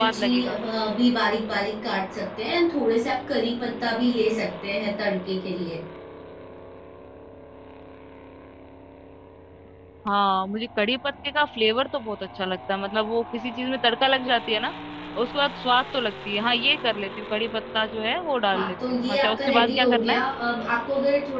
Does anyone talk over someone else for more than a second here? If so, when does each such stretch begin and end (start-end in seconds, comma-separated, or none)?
18.5-20.2